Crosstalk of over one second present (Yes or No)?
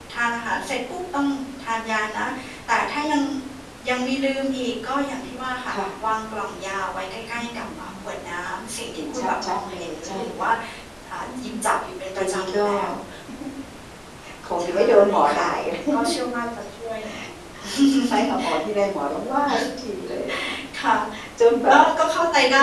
Yes